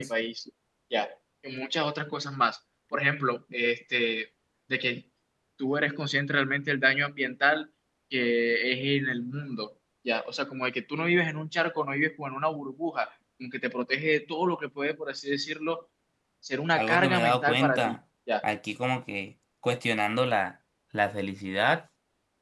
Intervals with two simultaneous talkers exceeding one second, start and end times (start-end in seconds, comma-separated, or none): 16.8-18.0